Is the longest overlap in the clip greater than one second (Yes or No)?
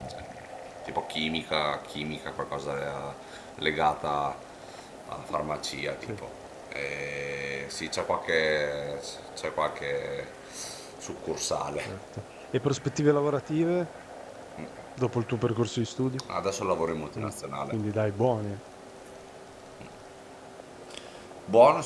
No